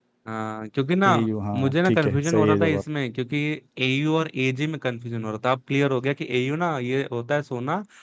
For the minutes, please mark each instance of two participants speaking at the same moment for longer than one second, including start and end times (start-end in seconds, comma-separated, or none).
1.5-2.8